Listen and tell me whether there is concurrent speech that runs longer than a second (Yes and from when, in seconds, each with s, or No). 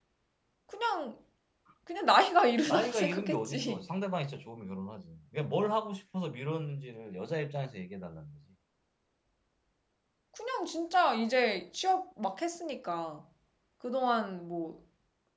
Yes, from 2.6 s